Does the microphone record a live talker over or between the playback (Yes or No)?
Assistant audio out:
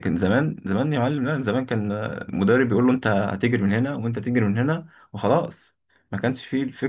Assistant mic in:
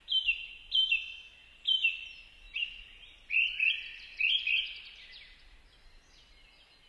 No